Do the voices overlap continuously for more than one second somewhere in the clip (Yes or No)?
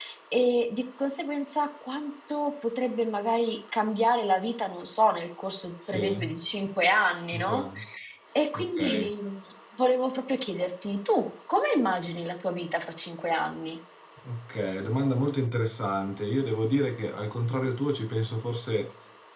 No